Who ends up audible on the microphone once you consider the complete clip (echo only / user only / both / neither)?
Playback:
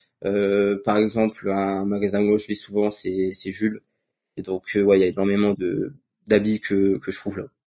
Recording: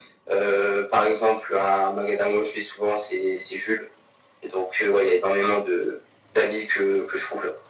echo only